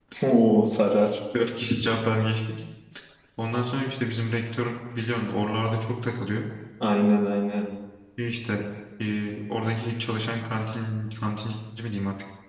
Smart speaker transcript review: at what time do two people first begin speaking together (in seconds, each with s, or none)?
none